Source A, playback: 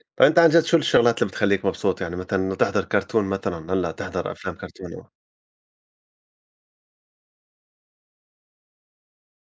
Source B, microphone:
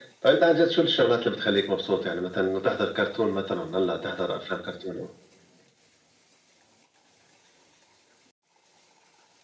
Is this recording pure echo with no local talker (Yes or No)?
Yes